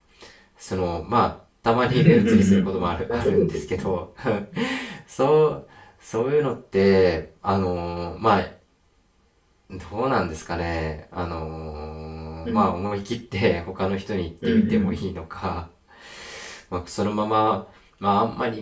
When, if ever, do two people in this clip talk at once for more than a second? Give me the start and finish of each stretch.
1.9-3.6

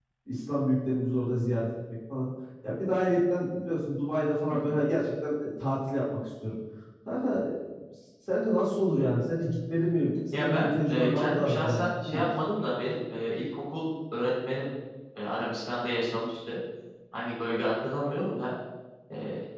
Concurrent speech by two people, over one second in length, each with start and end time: 10.3-12.2

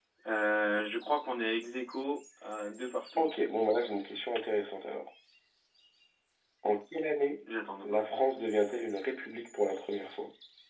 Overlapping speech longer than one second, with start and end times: none

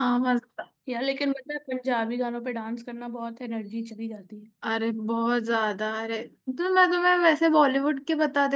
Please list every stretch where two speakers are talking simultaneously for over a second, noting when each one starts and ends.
none

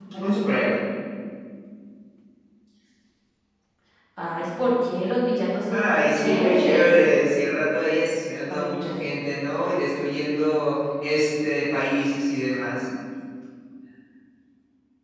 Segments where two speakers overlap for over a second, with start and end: 5.7-7.0

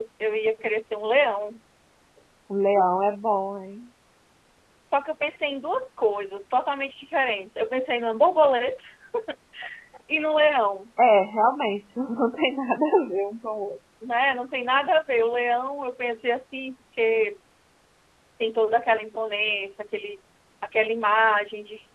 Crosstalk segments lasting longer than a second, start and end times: none

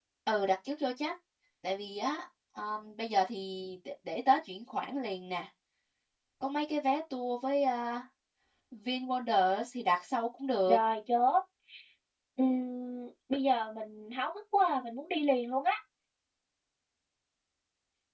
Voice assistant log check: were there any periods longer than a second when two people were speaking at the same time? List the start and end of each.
none

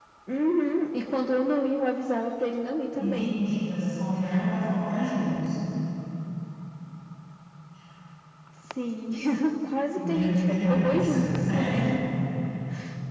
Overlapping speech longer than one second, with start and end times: 10.0-11.9

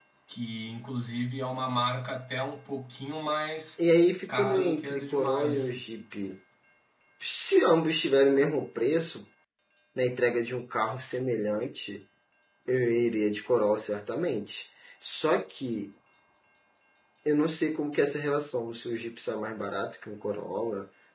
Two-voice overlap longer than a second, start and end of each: 4.3-5.8

